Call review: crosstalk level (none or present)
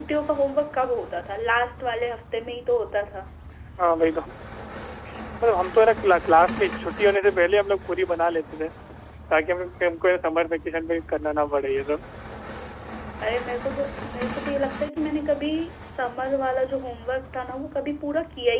none